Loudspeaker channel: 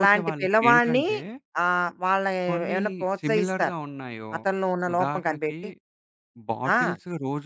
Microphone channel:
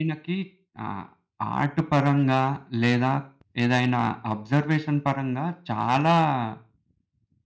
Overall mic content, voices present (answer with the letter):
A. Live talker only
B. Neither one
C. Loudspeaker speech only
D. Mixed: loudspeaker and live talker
A